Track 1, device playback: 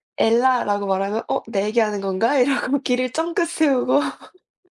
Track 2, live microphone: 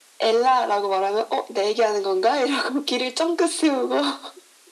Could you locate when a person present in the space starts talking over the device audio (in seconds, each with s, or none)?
none